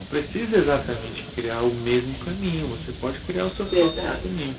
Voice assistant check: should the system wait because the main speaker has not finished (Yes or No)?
Yes